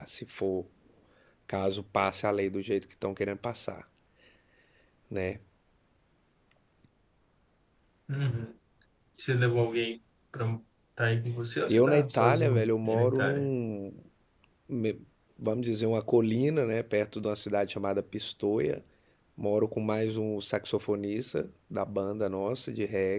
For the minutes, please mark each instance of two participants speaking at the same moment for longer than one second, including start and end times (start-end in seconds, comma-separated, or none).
11.7-13.5